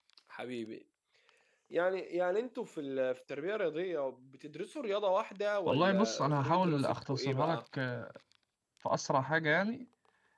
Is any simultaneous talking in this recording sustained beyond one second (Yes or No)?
Yes